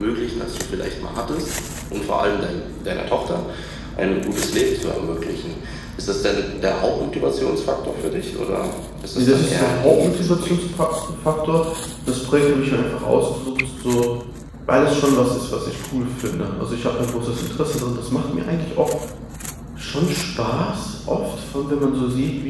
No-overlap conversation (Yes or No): No